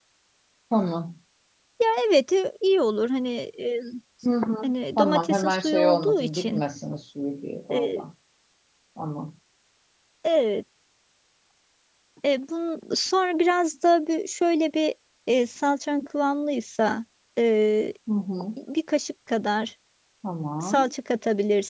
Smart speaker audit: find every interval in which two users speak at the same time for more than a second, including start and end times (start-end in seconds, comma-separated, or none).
4.6-6.6